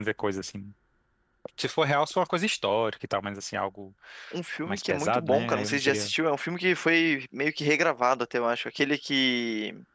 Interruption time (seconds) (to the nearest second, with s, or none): 5 s